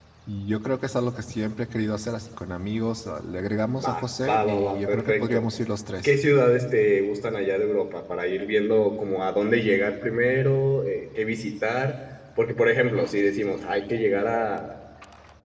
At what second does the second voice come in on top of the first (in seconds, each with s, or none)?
3.7 s